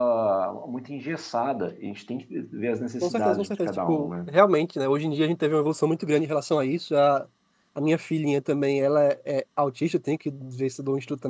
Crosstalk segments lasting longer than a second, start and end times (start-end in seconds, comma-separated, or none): 3.0-4.3